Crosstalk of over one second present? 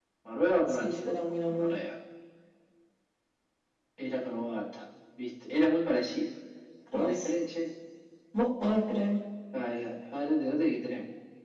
No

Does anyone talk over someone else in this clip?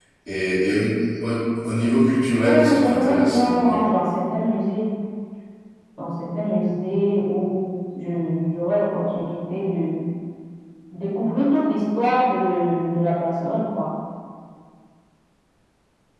Yes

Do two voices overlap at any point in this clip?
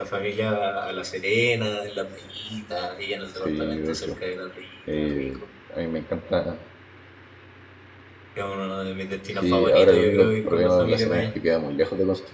Yes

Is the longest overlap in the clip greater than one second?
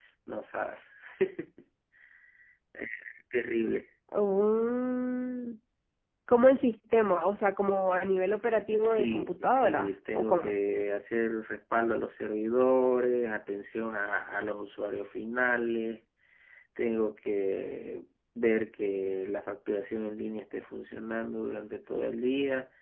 Yes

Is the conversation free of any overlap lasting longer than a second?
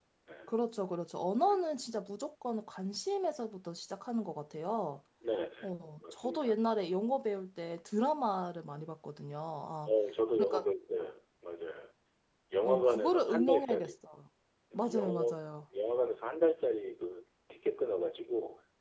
No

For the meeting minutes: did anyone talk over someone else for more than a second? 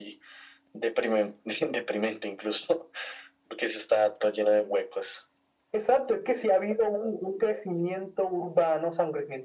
No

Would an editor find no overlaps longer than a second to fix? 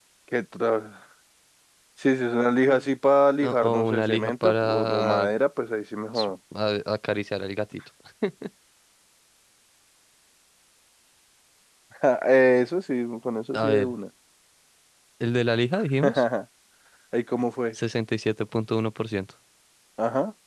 No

